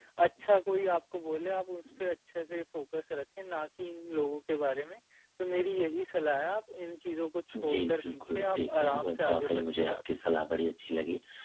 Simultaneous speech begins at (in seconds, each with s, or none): 7.5 s